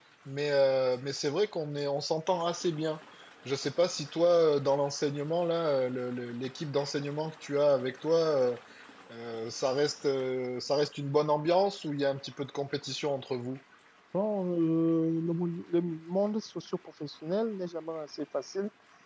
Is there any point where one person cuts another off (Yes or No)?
No